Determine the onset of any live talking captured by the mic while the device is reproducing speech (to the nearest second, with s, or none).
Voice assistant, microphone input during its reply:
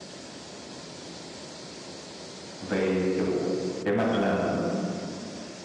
3 s